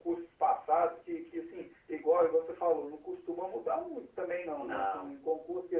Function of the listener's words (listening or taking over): listening